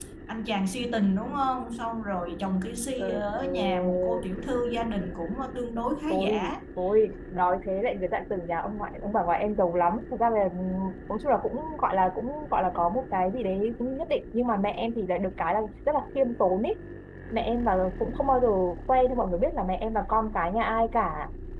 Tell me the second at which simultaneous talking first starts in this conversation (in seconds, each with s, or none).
3.0 s